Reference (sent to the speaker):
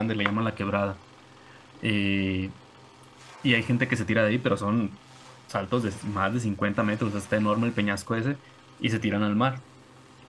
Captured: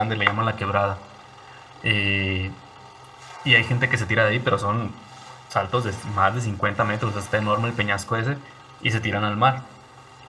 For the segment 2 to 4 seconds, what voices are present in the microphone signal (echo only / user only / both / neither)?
echo only